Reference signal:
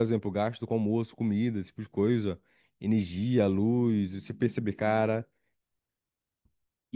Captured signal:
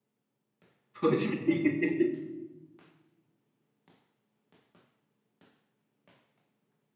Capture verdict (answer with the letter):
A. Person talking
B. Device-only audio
A